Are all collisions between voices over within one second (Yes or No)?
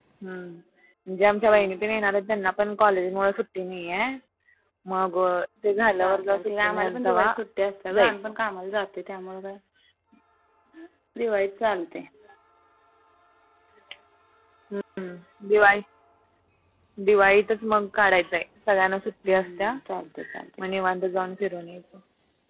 No